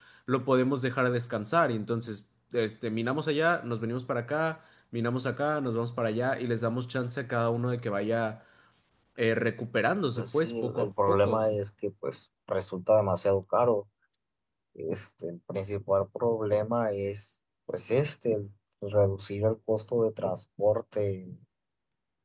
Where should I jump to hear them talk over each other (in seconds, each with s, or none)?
10.2 s